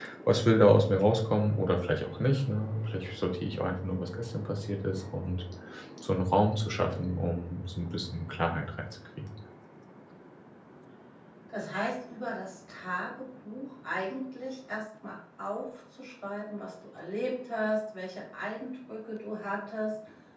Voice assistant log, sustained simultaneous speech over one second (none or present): none